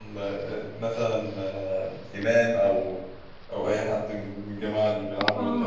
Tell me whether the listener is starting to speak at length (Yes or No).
Yes